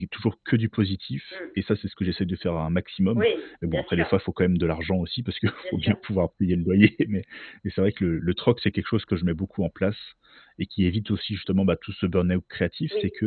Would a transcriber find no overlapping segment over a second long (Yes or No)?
Yes